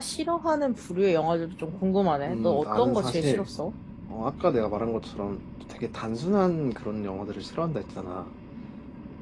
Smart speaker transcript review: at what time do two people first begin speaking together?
2.3 s

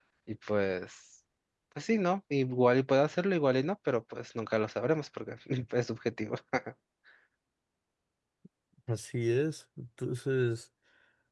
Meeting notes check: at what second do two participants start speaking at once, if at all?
none

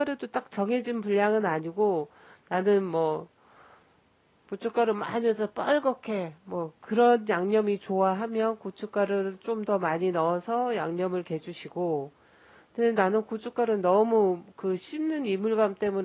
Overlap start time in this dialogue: none

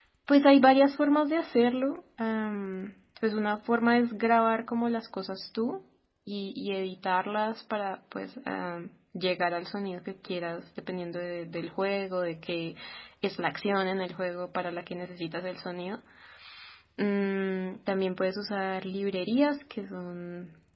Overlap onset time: none

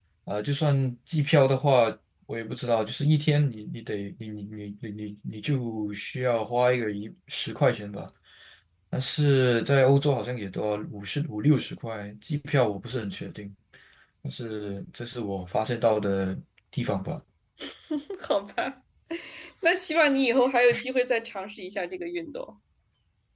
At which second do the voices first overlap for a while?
none

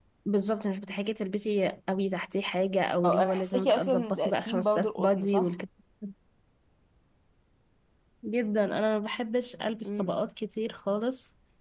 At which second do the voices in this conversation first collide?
3.0 s

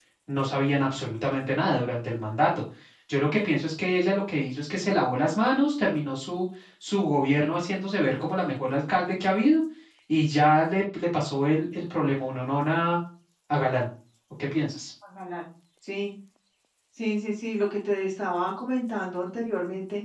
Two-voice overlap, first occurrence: none

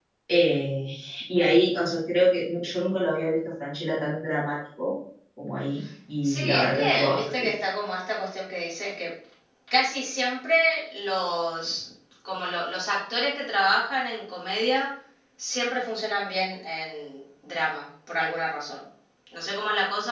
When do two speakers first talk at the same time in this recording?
6.2 s

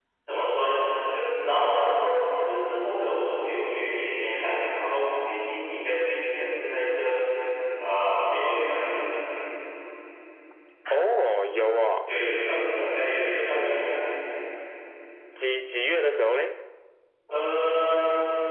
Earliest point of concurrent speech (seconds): none

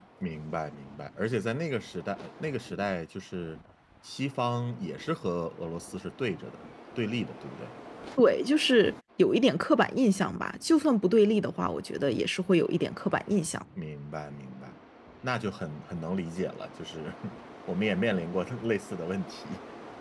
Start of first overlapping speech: none

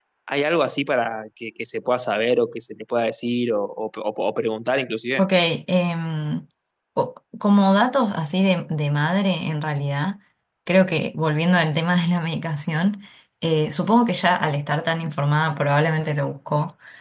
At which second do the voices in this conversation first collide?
none

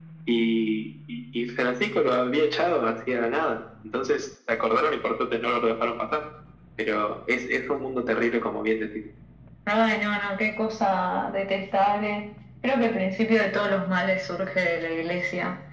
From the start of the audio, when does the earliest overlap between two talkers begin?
none

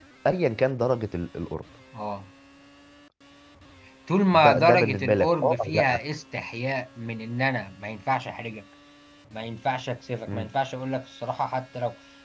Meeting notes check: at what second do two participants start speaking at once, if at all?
4.3 s

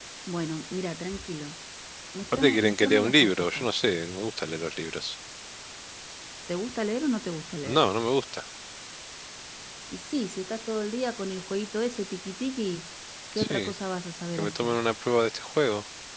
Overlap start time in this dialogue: 2.3 s

